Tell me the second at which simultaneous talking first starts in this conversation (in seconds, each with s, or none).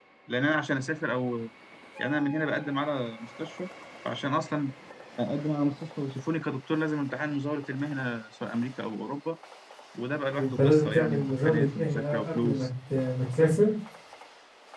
10.3 s